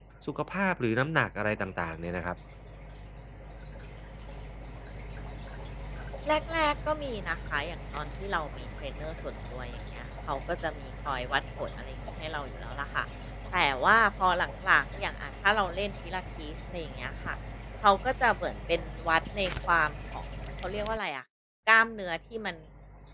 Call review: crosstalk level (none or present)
none